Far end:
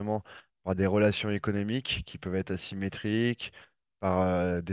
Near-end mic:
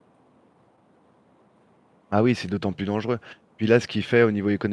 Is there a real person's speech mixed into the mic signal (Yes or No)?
Yes